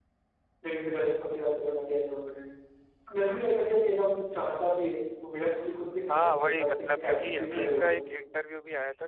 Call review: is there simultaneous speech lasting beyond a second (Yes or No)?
Yes